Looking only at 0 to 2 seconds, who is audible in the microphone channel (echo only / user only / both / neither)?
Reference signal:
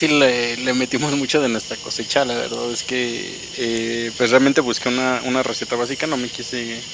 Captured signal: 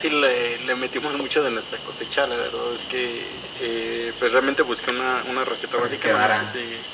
echo only